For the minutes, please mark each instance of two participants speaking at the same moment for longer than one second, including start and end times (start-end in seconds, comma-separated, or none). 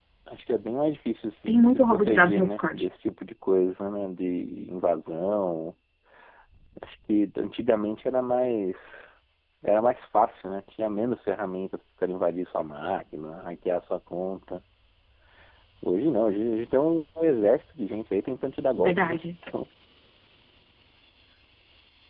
1.5-2.9